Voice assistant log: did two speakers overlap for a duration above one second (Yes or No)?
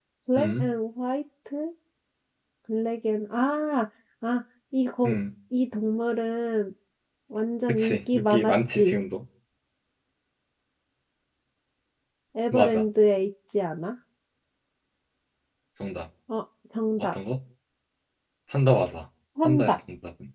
Yes